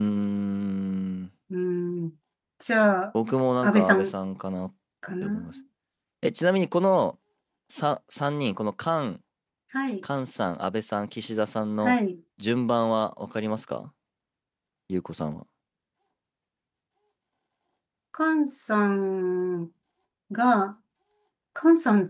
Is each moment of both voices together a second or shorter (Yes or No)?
Yes